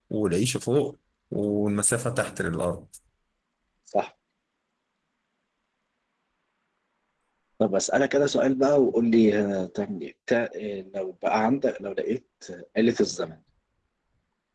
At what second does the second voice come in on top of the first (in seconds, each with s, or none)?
none